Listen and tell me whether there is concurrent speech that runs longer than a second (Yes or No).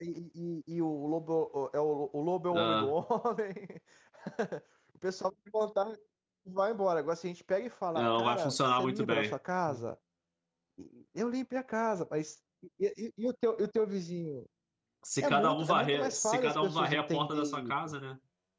Yes